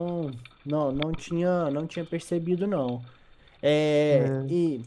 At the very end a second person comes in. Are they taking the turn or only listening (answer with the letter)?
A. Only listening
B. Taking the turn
A